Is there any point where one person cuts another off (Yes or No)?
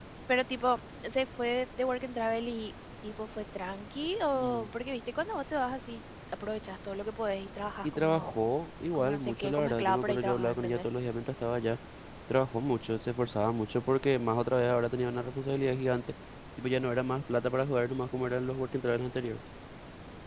Yes